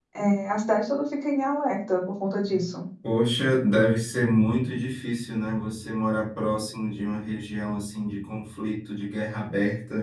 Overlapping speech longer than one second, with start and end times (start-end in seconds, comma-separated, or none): none